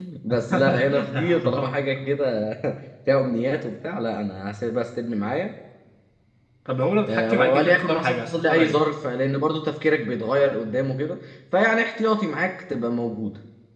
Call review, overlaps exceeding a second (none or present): present